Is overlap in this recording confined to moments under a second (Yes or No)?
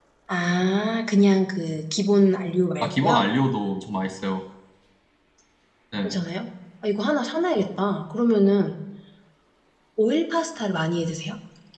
Yes